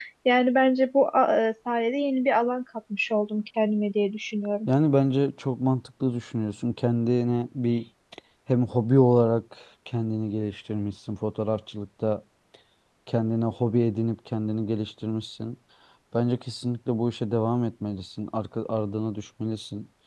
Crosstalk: none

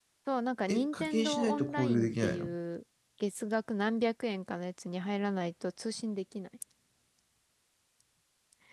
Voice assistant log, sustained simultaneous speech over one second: present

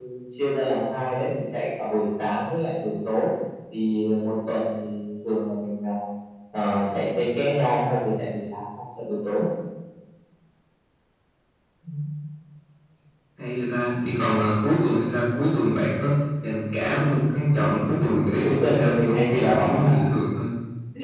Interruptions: present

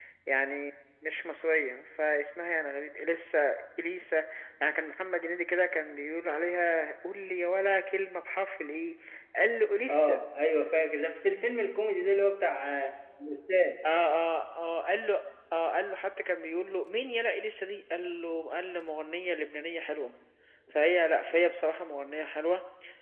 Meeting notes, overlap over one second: none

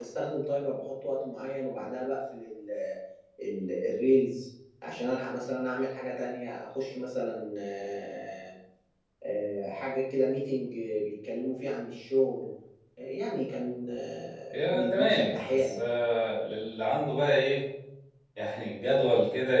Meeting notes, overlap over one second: present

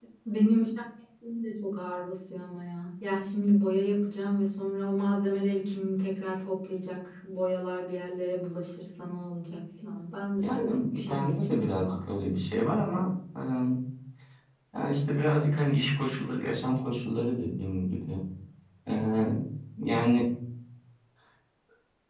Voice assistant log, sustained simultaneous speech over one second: present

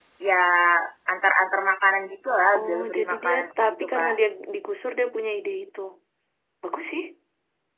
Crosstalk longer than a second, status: present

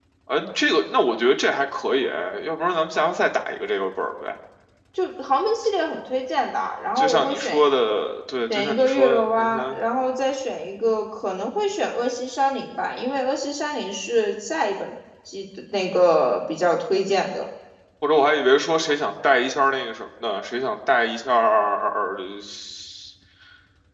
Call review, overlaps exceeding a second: present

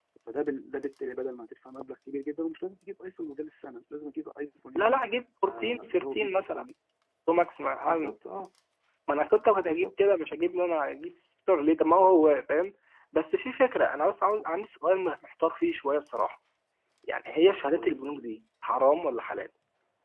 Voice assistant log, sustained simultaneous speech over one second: present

